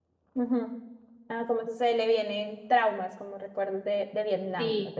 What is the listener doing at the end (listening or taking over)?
taking over